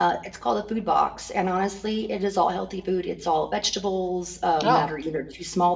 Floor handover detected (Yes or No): No